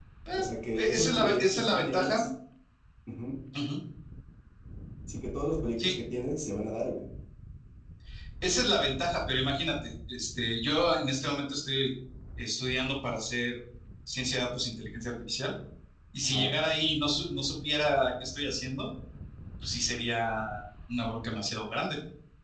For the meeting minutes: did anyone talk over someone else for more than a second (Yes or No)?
Yes